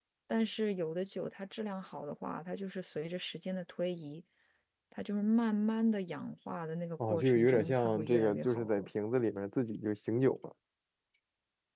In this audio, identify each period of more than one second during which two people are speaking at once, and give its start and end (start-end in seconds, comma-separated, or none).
7.0-8.9